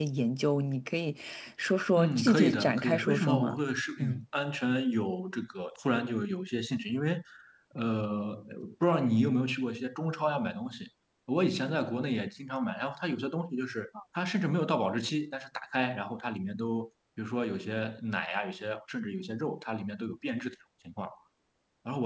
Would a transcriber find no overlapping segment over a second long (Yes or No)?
No